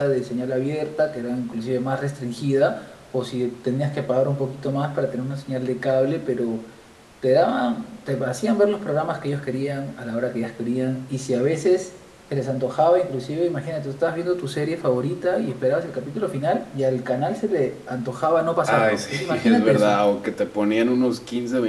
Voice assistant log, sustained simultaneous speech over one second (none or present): present